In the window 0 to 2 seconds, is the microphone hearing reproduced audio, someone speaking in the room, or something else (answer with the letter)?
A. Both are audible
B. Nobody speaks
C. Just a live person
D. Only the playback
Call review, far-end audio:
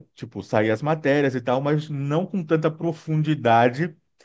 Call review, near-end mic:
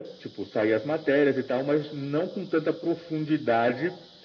D